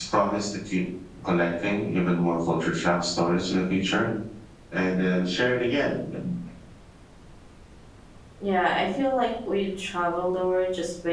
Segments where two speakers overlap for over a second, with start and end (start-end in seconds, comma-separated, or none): none